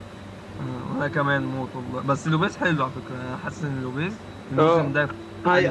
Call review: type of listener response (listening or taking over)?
taking over